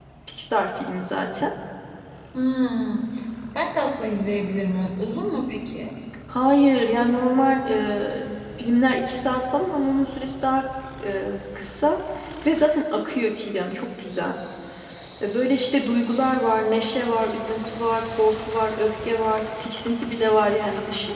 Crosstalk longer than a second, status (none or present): none